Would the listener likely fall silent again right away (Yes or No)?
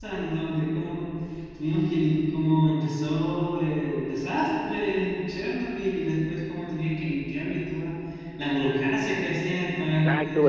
No